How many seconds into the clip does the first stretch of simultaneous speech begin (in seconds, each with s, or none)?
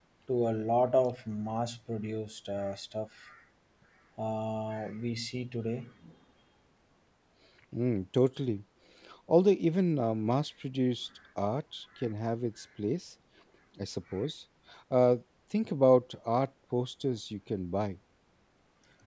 none